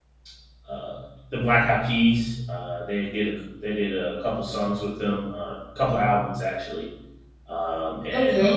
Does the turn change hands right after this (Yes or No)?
Yes